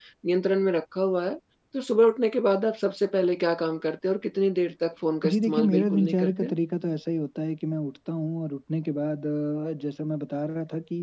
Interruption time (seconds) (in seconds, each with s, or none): 5.2 s